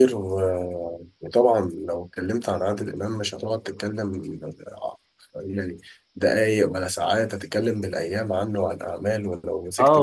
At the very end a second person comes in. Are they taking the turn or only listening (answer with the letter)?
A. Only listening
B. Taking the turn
B